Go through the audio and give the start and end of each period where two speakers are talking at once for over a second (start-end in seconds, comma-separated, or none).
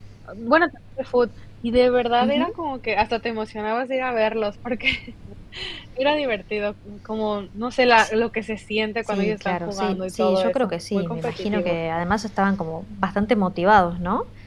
9.1-11.8